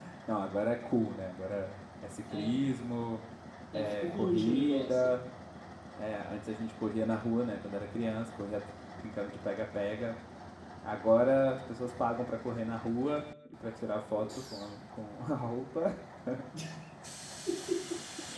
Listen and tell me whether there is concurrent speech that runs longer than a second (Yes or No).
Yes